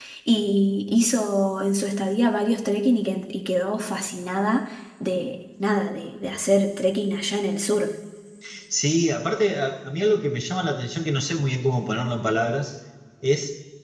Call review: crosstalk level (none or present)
none